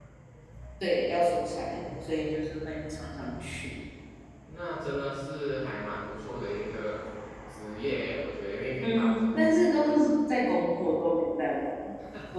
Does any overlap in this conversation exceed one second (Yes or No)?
Yes